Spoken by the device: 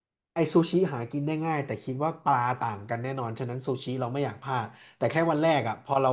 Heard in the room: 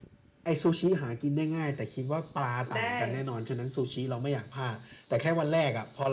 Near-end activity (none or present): present